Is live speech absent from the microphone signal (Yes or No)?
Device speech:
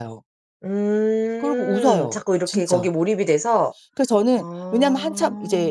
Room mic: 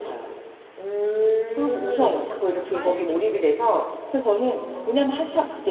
No